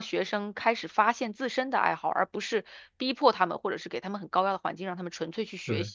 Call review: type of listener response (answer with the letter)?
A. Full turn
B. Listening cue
B